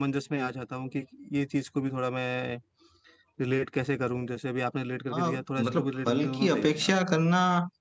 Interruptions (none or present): present